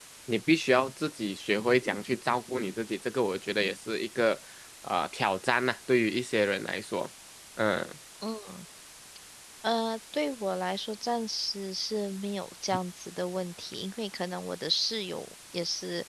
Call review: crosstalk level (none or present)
none